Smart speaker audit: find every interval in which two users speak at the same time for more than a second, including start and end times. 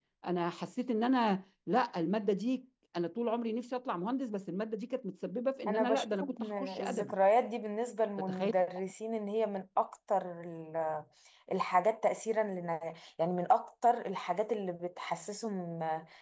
5.7-7.1

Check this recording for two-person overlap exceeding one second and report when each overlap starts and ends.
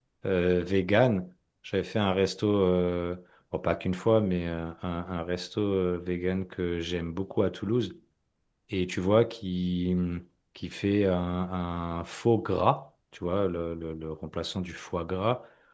none

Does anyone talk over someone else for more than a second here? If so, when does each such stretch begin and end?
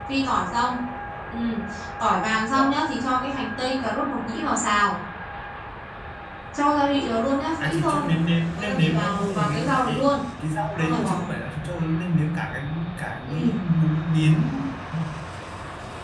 8.6-9.9

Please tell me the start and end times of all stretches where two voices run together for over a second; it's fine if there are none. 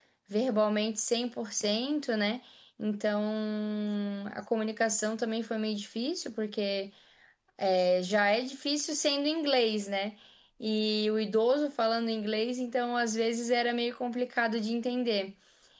none

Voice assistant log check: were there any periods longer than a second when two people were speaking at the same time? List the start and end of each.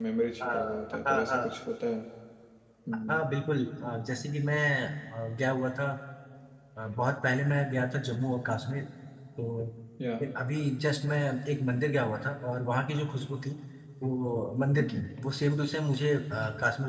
none

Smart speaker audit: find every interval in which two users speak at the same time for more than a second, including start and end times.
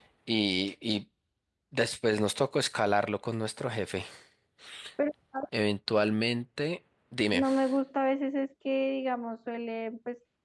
none

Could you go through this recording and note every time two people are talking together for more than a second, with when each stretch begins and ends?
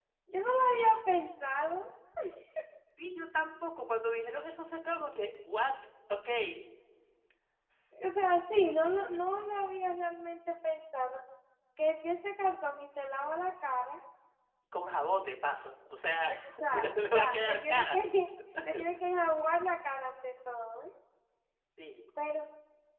16.3-18.0

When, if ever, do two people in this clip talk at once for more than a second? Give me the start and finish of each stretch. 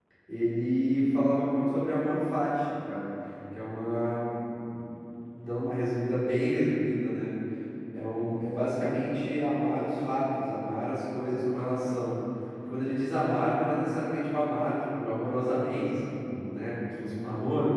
none

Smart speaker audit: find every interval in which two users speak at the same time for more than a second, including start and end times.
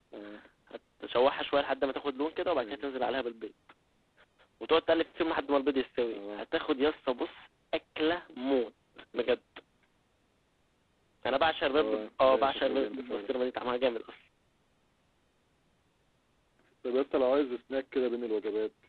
11.8-13.3

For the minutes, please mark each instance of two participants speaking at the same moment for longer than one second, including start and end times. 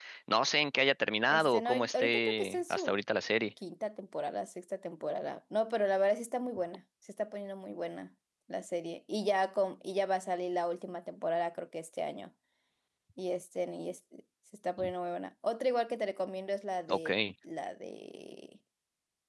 1.3-3.0

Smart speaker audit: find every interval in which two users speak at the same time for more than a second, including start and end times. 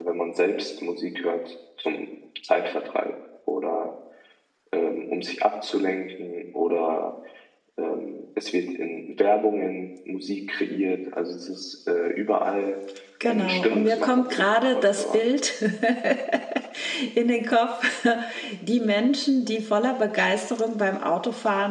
13.3-15.2

